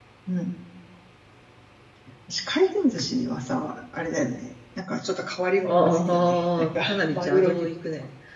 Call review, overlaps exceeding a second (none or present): present